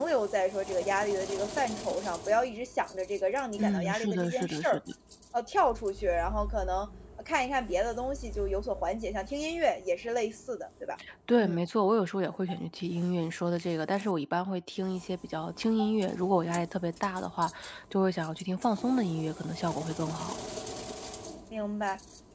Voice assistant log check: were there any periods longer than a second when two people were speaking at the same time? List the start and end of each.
3.6-4.8

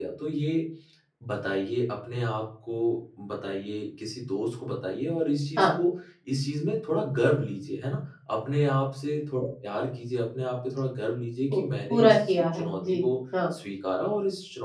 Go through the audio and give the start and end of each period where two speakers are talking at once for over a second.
11.5-13.0

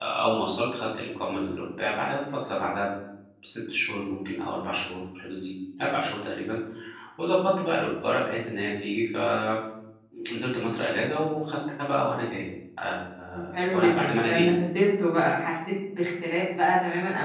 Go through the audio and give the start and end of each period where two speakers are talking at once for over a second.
13.3-14.6

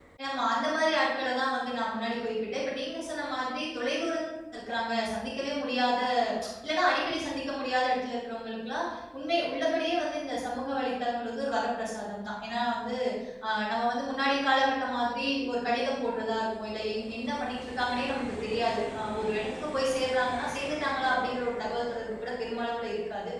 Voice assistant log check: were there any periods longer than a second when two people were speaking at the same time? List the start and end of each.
none

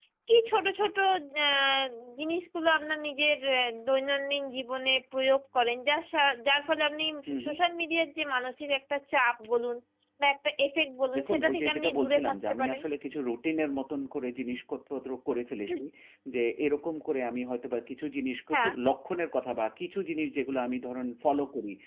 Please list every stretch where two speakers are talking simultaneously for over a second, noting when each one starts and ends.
11.2-12.8

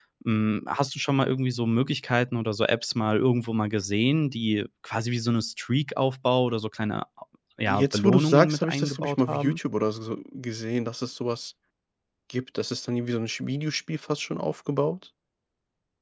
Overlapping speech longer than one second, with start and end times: 7.7-9.6

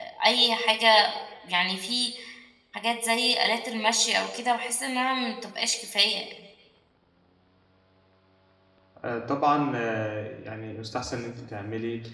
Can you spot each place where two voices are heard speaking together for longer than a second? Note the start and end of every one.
none

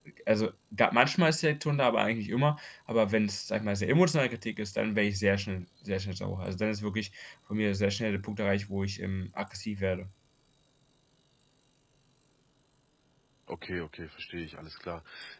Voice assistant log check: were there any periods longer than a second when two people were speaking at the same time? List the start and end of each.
none

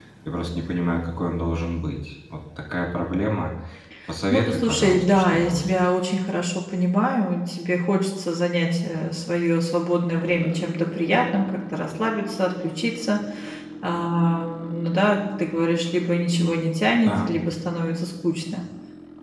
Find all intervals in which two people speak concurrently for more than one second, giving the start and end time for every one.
4.3-5.7

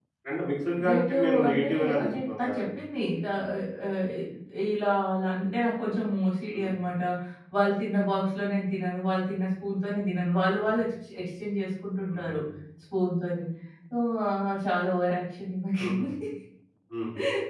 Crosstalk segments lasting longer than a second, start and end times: 0.8-2.7

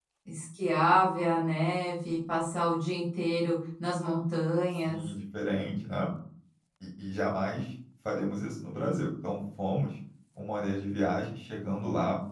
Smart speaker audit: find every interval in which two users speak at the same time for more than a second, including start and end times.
none

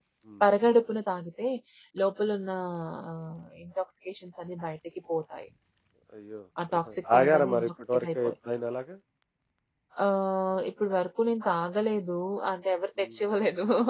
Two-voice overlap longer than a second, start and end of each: 6.8-8.3

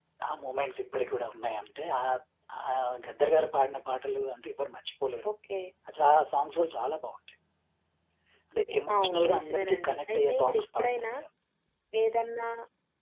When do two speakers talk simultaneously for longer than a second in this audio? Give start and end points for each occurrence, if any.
9.0-11.1

